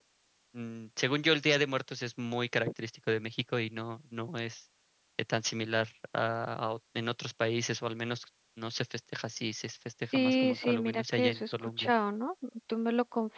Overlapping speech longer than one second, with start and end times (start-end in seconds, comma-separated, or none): 10.1-11.9